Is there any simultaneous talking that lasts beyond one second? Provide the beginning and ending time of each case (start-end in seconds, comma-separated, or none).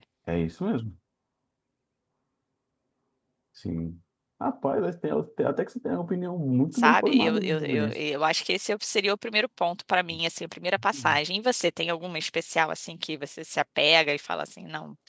6.8-8.0